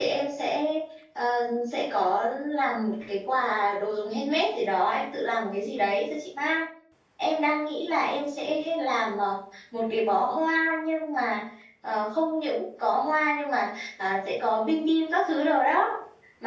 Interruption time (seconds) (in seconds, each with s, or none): none